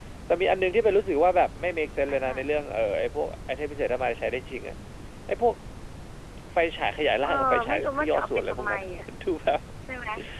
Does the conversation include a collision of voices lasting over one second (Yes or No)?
Yes